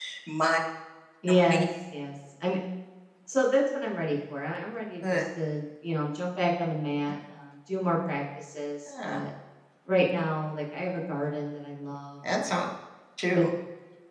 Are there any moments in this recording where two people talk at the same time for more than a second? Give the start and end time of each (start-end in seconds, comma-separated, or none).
none